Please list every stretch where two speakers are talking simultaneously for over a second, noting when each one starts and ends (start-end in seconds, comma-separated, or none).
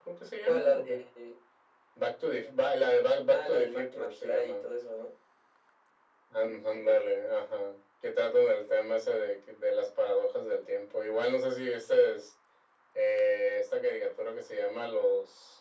3.3-4.7